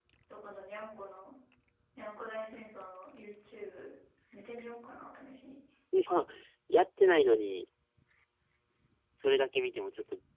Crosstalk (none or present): none